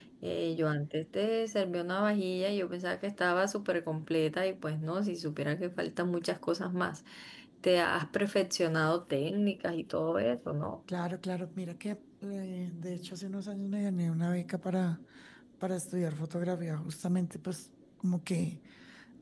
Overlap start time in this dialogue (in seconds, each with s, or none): none